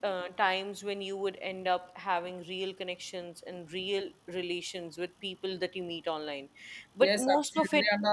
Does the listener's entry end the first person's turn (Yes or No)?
Yes